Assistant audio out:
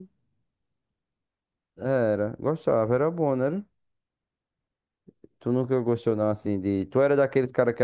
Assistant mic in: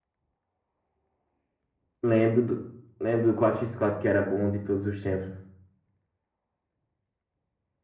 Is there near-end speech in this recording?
Yes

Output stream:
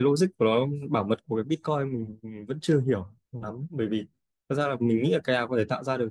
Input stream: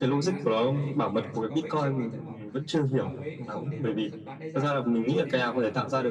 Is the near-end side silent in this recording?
No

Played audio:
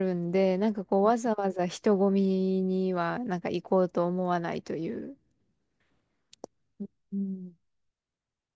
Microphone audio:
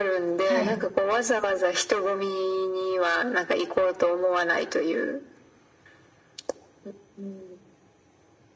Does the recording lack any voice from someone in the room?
No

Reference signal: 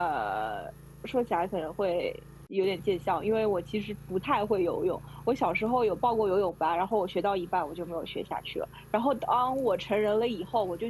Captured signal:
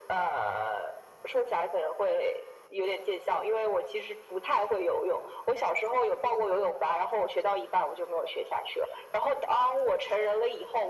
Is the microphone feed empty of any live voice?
Yes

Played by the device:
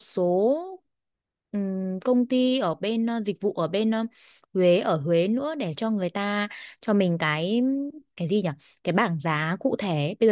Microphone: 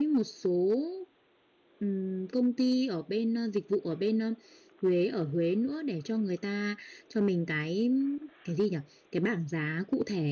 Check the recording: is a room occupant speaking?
No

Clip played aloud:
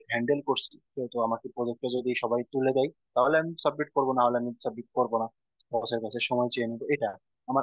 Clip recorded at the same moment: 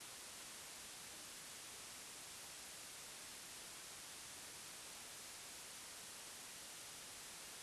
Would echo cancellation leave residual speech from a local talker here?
No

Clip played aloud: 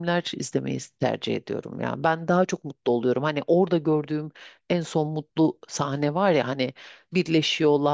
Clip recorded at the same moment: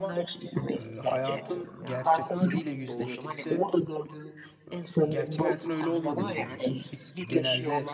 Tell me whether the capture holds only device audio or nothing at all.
No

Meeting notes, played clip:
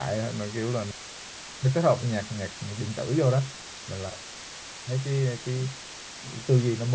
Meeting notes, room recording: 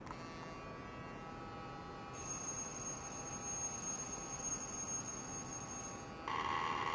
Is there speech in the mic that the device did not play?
No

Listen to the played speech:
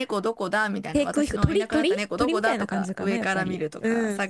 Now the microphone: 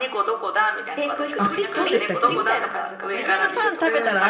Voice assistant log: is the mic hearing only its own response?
No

